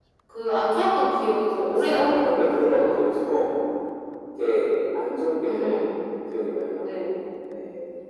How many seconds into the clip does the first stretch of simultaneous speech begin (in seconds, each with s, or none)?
1.7 s